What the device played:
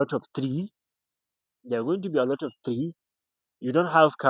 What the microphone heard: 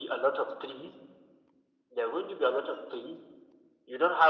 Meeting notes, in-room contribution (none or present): none